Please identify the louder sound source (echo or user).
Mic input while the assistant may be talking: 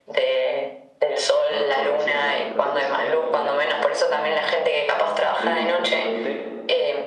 echo